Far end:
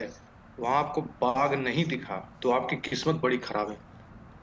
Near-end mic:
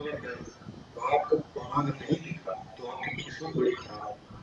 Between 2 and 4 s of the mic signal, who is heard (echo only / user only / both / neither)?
echo only